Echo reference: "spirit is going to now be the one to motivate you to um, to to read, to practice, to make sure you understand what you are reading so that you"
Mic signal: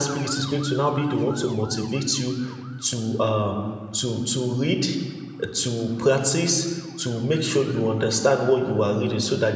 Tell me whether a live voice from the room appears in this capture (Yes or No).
No